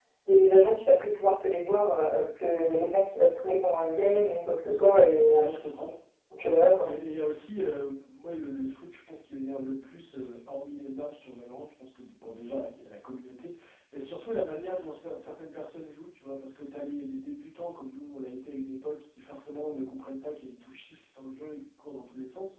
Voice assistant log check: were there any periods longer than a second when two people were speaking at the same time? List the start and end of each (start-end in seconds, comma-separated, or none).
none